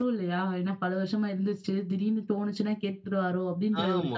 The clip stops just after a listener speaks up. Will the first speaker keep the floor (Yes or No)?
No